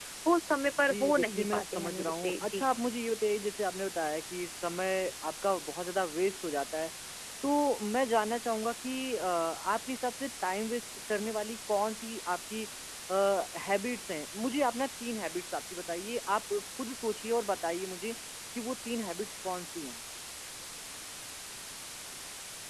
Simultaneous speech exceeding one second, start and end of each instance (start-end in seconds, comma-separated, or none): 0.9-2.6